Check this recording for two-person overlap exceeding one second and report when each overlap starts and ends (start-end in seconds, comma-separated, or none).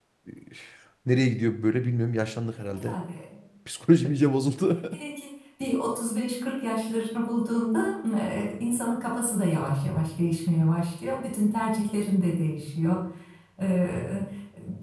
none